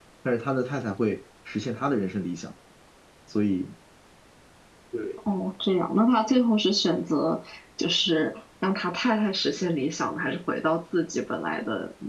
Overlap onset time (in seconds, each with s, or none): none